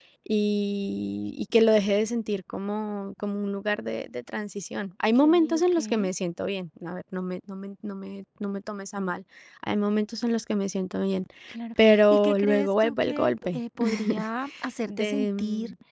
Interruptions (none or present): present